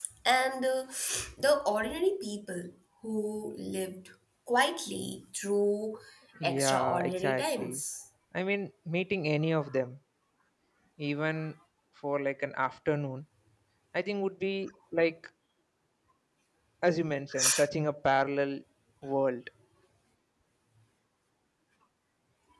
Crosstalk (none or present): present